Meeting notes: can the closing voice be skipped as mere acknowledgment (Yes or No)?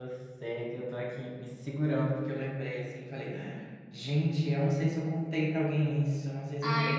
No